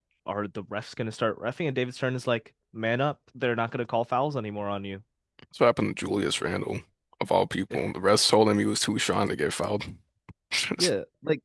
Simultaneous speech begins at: none

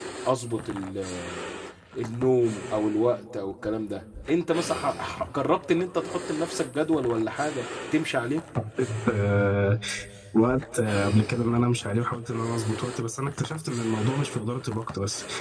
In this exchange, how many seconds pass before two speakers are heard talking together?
none

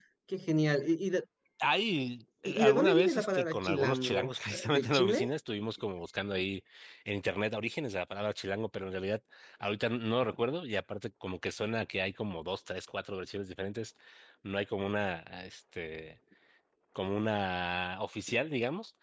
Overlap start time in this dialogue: 2.5 s

